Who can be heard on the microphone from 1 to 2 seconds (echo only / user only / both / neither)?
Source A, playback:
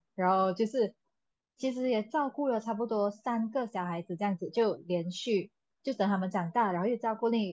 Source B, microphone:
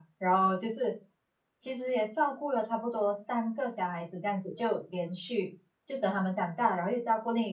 echo only